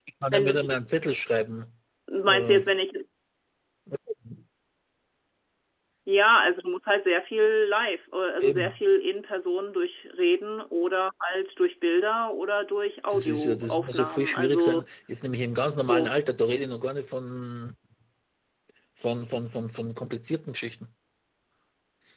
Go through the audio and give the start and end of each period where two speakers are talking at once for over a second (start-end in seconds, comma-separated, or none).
13.1-14.8